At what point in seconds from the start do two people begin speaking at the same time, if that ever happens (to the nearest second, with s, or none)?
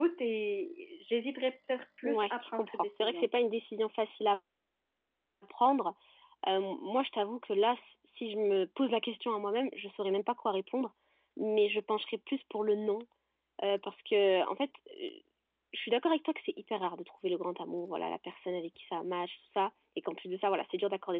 2 s